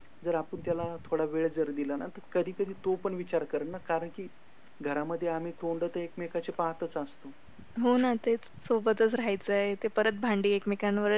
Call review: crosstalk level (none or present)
none